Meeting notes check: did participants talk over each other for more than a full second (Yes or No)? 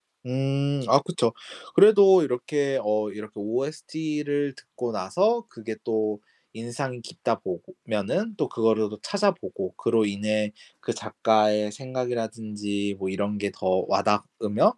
No